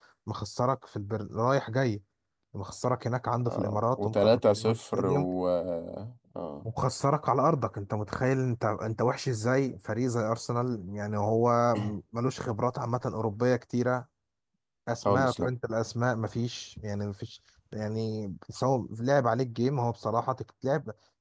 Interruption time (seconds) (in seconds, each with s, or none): 3.4 s